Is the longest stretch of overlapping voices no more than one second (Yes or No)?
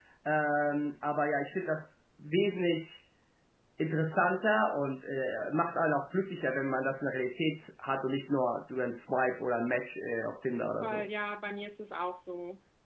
Yes